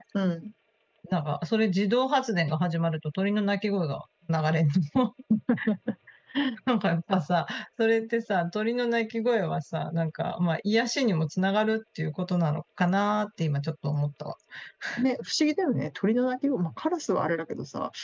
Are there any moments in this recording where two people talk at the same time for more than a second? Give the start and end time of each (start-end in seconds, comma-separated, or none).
none